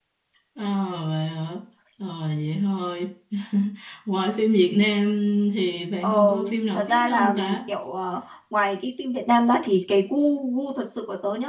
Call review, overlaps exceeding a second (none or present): present